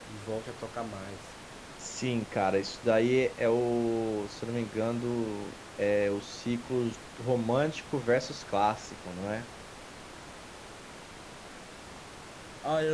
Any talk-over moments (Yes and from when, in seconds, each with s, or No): No